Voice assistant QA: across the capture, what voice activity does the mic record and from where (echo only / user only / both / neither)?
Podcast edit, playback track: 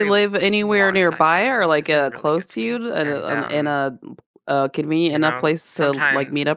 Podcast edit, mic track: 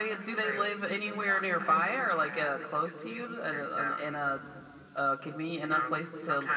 both